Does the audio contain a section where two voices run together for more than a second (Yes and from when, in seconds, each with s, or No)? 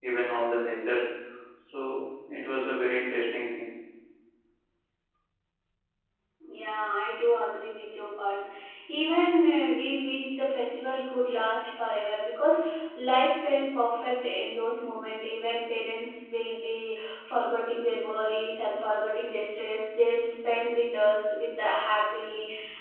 No